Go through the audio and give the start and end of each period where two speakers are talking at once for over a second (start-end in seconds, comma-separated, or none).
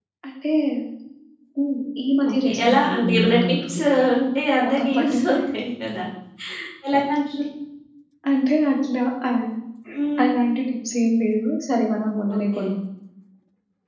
2.4-3.8